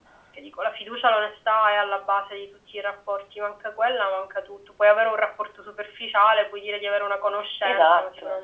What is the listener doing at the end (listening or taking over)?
taking over